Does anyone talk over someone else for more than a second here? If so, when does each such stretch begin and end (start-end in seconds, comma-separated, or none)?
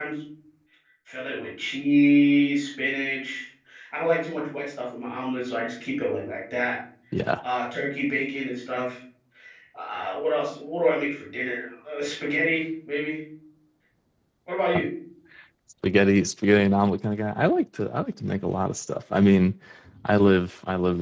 none